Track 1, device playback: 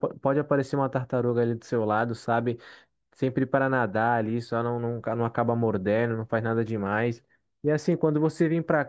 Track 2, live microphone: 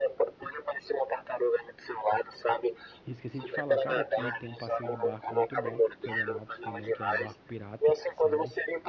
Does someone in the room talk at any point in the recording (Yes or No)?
Yes